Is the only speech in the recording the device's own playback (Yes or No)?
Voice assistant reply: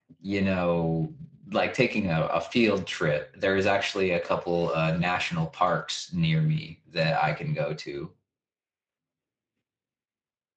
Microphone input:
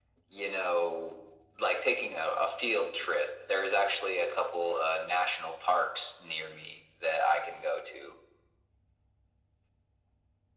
Yes